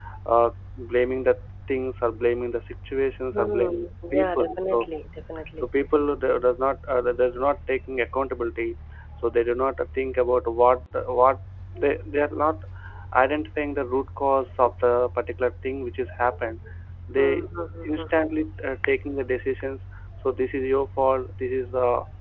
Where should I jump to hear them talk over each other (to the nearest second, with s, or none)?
3 s